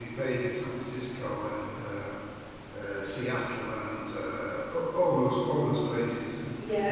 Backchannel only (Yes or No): Yes